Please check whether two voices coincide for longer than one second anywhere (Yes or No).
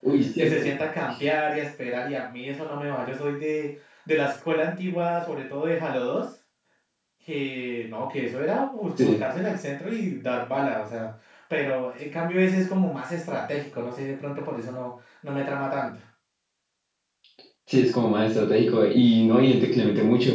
No